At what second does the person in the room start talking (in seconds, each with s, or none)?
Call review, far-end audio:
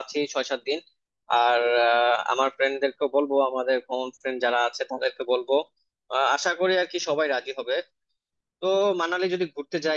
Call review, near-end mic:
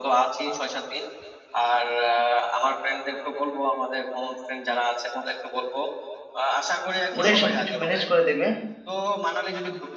7.2 s